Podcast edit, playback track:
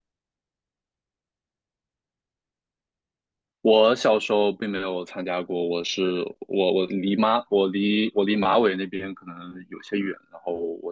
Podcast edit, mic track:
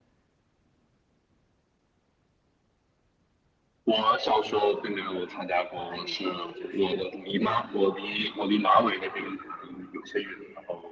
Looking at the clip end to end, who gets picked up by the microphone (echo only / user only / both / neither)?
both